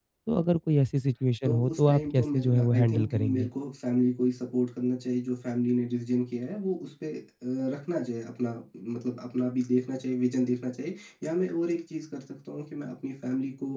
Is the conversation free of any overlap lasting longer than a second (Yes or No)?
No